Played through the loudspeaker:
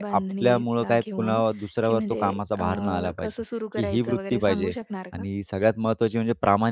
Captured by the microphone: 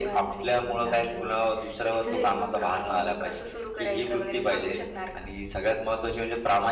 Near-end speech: present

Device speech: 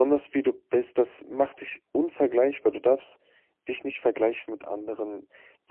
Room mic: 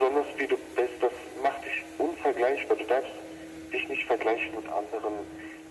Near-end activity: none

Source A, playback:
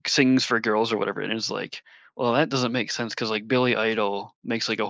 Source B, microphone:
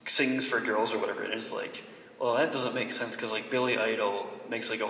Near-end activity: none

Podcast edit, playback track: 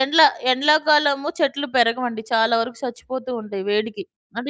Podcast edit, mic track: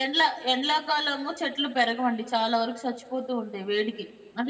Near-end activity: none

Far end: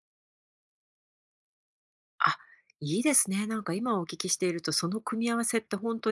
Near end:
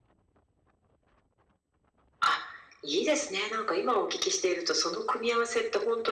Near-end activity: none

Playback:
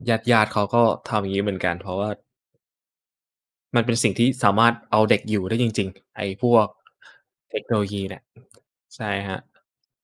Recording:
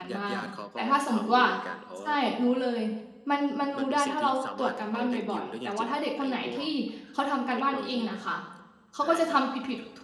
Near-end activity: present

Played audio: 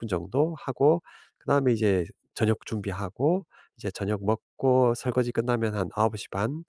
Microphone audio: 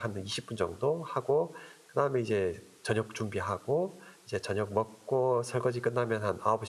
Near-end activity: none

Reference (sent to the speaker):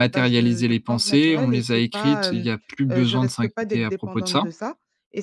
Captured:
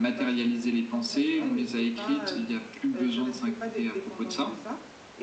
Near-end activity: none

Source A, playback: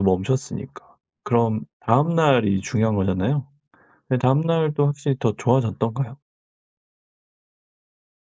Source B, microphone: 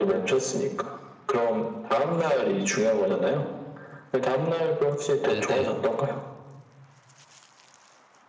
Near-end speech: present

